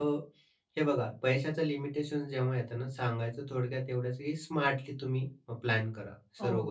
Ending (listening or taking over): taking over